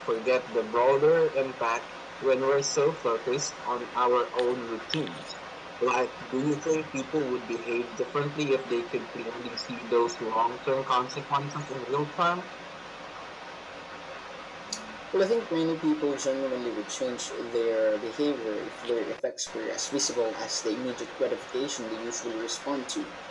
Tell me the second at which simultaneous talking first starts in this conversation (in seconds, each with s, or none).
none